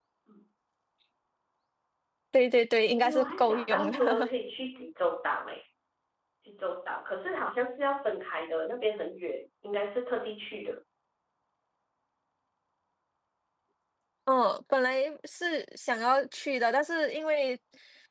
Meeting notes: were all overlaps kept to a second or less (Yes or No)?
No